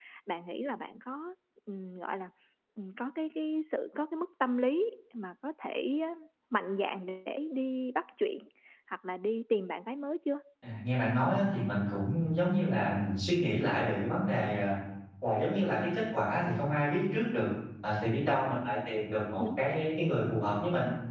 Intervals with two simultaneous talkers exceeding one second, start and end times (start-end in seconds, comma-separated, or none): none